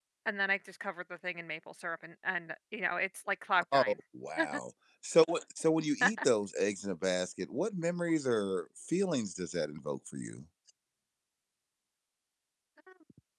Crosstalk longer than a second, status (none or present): none